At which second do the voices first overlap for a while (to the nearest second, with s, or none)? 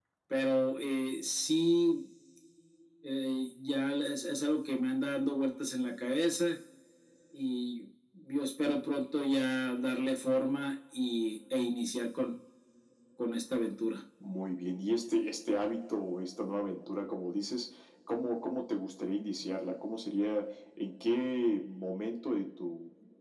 none